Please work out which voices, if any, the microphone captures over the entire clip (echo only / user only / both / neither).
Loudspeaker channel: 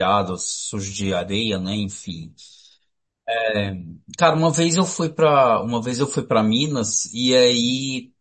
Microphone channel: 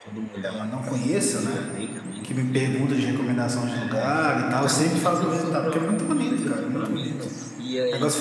both